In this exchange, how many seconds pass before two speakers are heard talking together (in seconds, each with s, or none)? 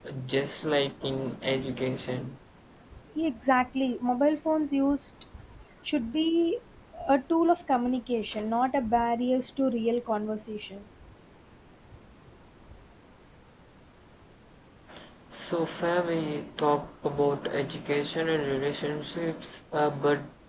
none